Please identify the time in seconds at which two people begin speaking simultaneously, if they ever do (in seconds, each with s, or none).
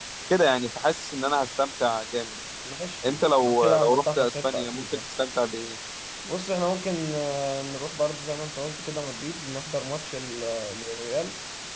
3.1 s